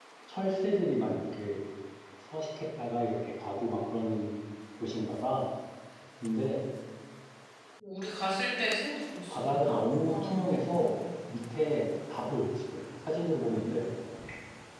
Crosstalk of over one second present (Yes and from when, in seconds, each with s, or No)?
Yes, from 9.3 s